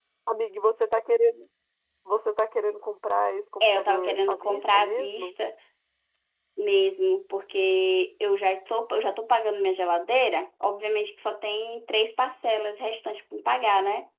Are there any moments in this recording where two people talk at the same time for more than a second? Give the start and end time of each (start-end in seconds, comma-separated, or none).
3.6-5.3